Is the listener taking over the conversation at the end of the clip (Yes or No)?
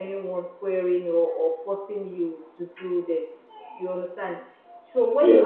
No